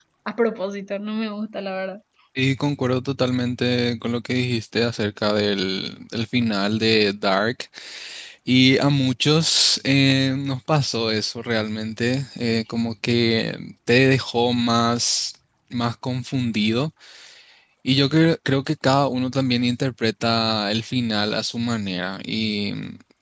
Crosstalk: none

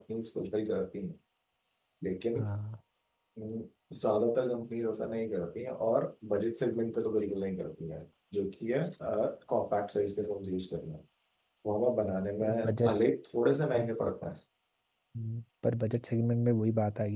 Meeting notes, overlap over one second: none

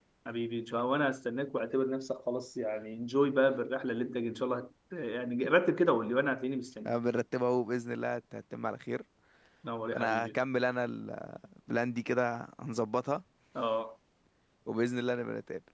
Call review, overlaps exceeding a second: none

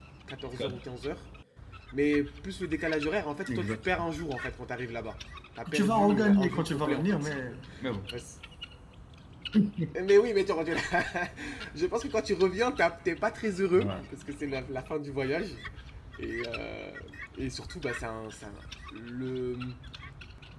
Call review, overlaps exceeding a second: present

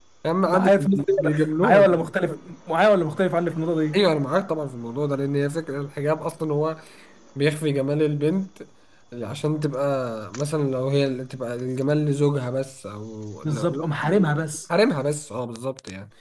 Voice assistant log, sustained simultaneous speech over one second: present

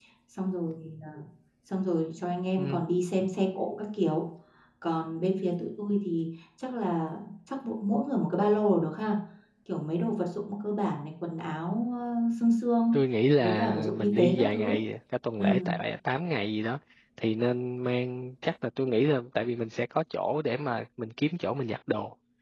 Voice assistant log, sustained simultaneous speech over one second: present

